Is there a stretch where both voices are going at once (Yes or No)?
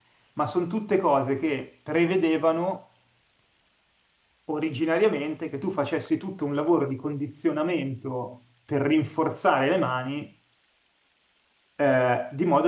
No